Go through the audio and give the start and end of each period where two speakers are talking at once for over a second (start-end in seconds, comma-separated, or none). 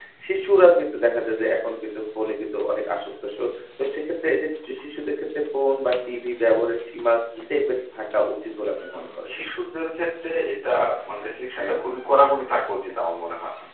none